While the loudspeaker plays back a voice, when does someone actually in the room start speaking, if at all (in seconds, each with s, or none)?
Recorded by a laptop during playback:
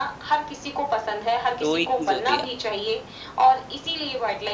1.6 s